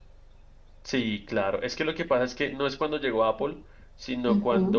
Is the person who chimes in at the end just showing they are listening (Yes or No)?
Yes